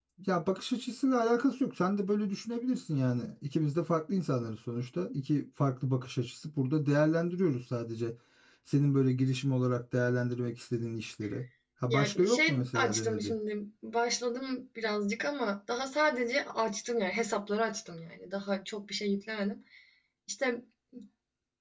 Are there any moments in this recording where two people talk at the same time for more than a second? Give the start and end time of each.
11.9-13.3

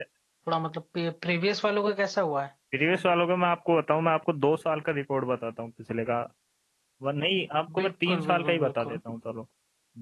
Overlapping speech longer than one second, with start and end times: 7.8-9.0

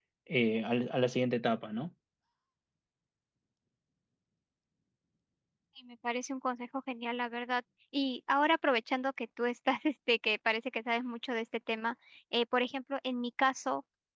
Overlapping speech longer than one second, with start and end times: none

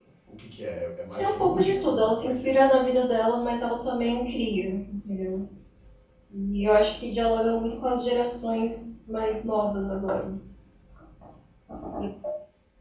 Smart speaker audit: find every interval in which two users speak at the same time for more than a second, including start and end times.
1.2-2.5

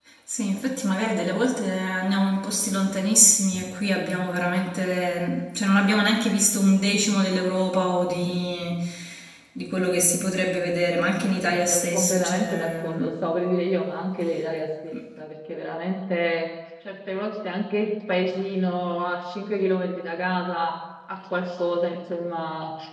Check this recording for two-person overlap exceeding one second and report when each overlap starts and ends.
11.2-12.8

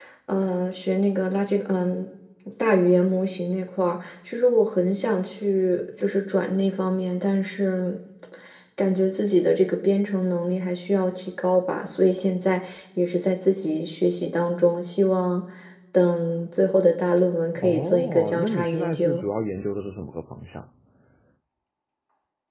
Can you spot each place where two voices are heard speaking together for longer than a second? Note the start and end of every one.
17.6-19.2

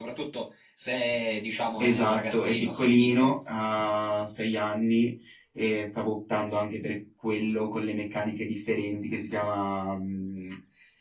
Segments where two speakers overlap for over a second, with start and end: 1.8-3.4

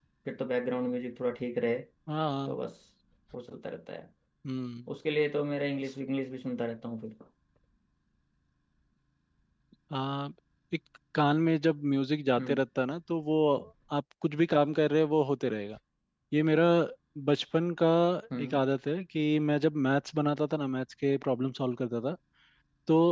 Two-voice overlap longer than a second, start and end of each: none

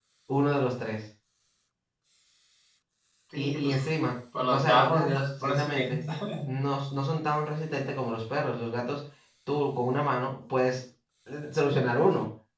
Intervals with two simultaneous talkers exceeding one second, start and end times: 4.5-6.0

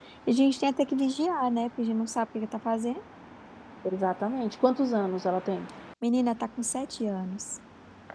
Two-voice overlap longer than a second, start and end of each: none

